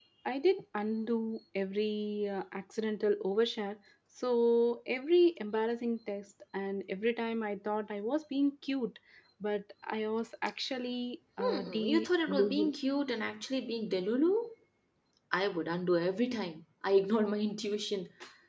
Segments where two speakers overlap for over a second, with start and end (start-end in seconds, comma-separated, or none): 11.4-12.7